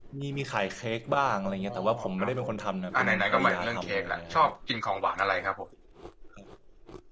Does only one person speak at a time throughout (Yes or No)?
No